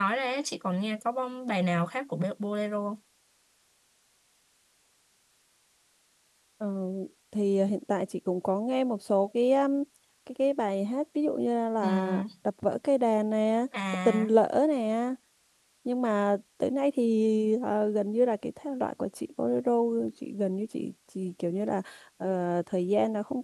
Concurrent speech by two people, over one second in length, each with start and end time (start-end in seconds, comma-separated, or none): none